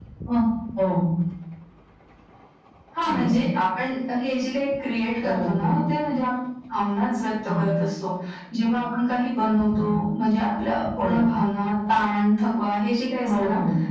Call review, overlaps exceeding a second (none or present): none